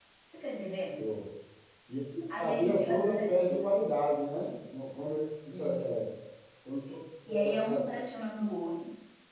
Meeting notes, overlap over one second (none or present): present